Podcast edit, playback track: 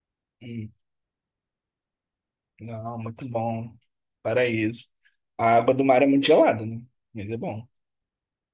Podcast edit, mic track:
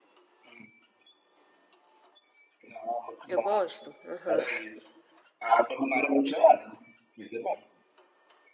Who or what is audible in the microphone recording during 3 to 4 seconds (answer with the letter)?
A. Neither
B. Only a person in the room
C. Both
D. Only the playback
C